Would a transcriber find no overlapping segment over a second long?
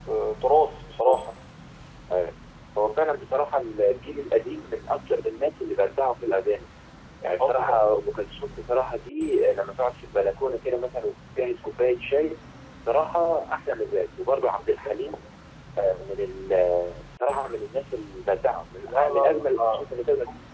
No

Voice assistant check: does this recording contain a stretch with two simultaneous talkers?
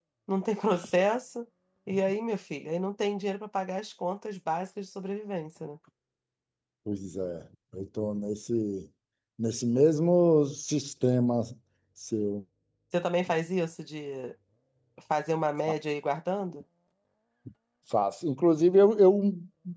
No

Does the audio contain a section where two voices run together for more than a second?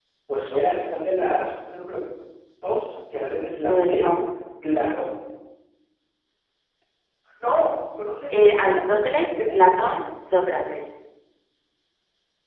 Yes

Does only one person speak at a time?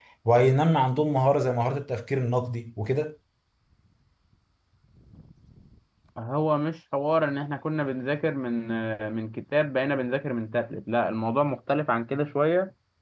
Yes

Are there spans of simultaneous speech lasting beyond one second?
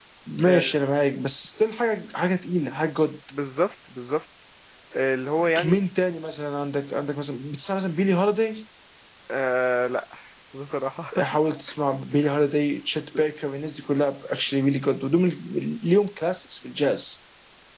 No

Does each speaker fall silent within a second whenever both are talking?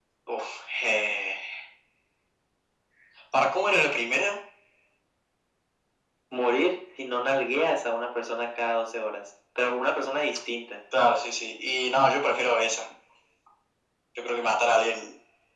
Yes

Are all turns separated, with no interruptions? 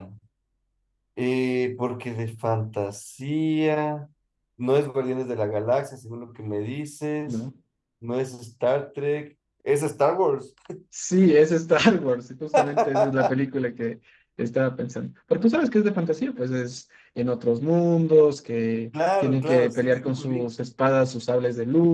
No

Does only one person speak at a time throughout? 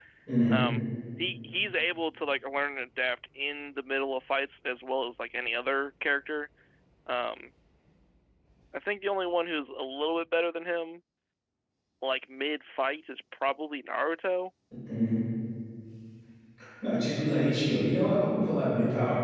Yes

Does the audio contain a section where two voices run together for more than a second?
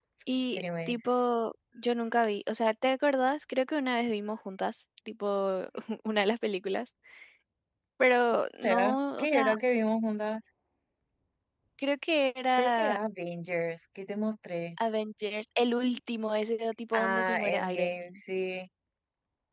Yes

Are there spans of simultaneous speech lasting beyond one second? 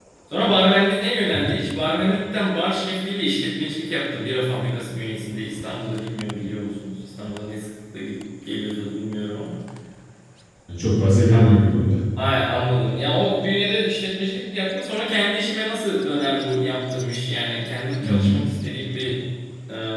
No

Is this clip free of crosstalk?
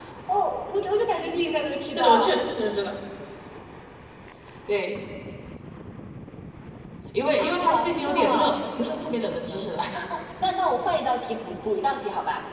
No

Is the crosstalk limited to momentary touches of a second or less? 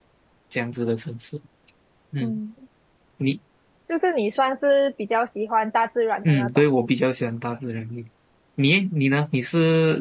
Yes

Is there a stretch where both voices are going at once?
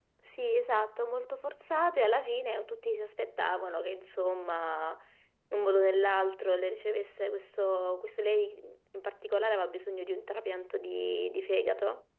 No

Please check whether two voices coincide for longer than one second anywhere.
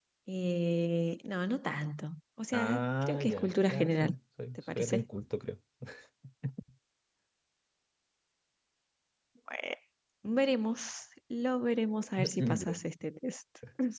Yes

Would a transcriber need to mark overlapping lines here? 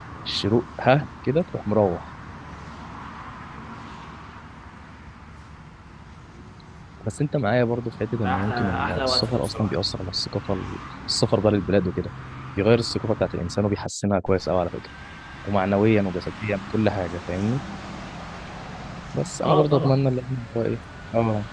Yes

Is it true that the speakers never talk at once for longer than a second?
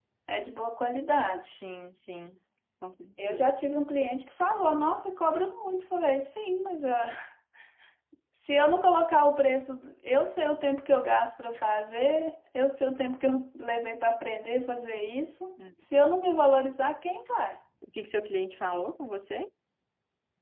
Yes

